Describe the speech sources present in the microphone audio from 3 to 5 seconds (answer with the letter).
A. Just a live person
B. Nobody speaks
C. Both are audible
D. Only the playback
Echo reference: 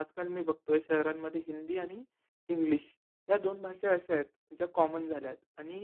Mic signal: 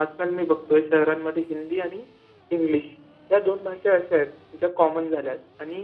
D